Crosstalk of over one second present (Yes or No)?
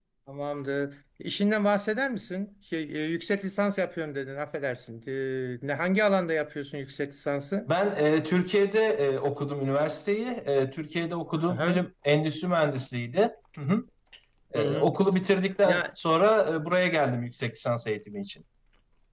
No